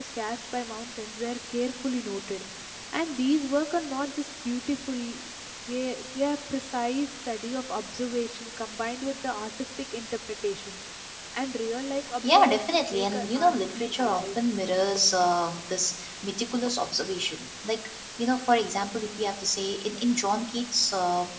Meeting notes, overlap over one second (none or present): present